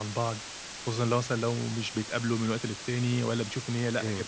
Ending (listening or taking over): listening